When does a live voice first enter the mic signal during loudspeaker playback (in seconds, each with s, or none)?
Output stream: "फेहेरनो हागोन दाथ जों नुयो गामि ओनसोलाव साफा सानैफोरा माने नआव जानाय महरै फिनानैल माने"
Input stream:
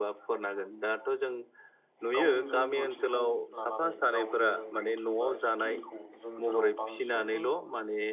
2.1 s